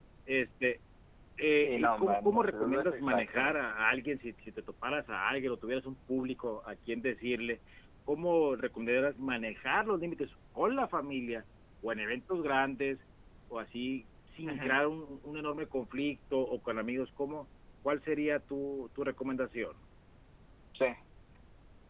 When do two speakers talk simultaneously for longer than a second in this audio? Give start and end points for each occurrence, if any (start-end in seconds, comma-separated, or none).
1.6-3.6